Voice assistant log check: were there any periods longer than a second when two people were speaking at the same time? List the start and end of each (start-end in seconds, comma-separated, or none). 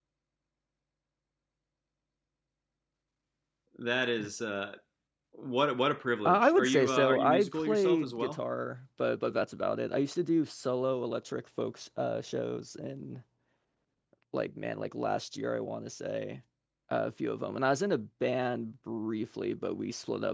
6.2-8.4